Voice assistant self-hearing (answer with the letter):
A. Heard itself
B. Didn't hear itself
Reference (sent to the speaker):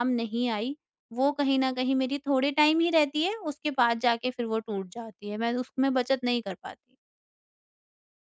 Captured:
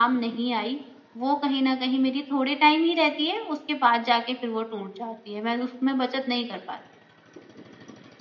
A